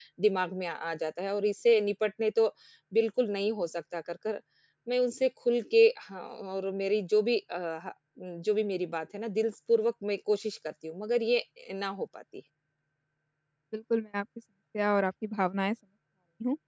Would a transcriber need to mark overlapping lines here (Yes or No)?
No